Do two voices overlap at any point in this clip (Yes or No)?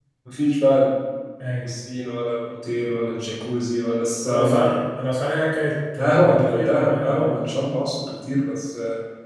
Yes